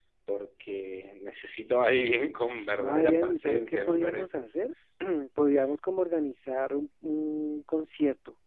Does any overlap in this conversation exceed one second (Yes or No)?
Yes